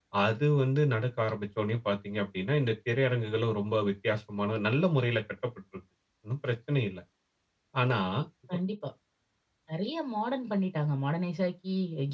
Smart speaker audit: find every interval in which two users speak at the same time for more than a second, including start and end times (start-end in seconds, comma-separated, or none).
none